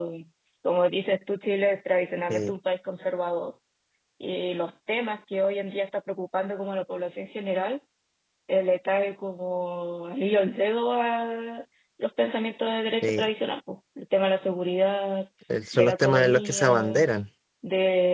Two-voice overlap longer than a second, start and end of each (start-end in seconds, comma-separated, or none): 15.7-17.0